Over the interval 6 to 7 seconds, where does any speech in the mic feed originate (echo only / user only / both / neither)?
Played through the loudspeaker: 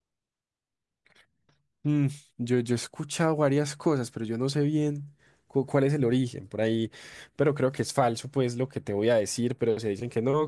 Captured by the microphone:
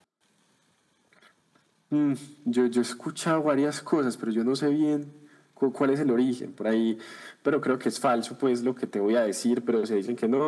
echo only